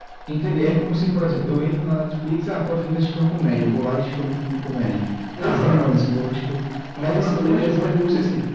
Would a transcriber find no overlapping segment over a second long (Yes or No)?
No